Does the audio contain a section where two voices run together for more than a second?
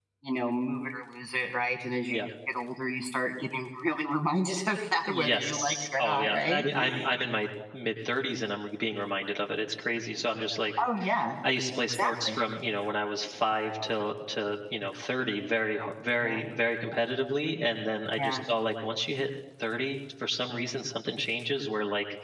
Yes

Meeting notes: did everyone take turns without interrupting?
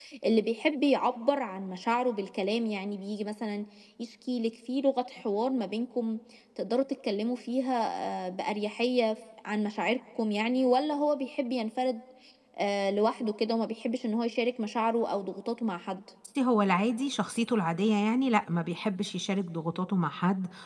Yes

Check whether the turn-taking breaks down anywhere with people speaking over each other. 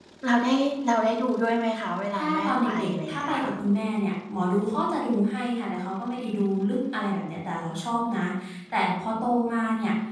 Yes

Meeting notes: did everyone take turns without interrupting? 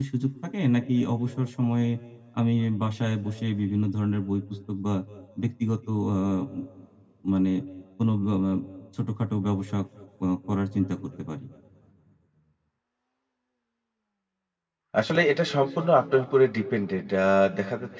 Yes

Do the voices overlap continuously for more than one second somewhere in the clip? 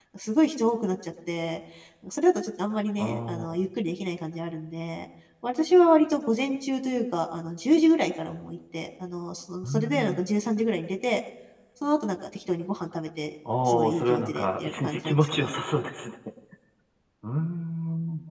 Yes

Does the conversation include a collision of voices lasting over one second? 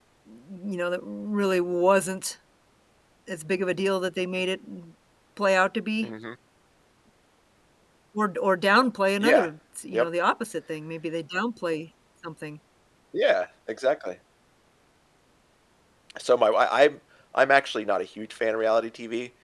No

